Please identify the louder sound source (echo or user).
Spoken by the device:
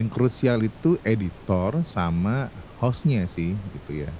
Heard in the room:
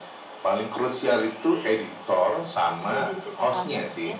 echo